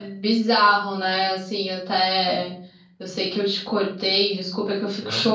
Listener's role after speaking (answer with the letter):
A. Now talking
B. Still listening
B